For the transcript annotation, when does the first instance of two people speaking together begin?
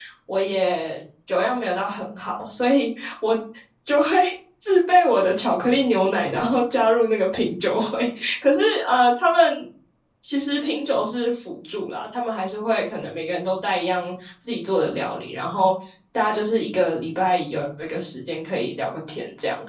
none

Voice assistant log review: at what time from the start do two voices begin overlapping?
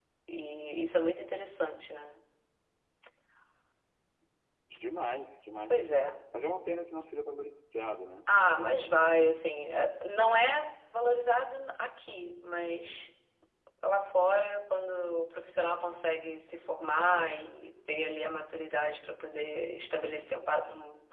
none

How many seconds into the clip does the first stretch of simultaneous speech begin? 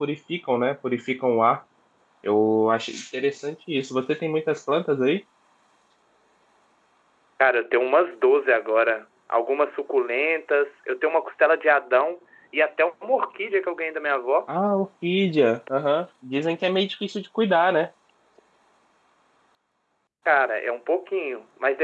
none

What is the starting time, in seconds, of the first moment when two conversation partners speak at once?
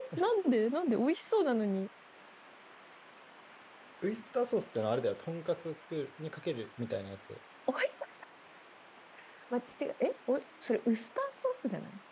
none

